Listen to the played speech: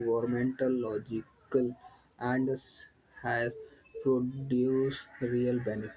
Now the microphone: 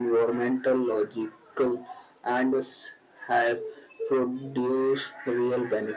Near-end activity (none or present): none